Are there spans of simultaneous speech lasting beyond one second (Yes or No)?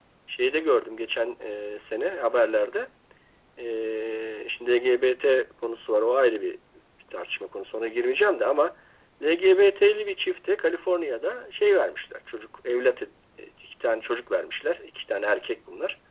No